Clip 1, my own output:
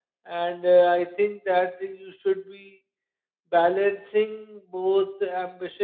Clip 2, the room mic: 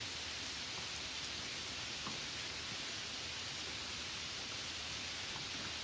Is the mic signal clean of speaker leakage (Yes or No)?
Yes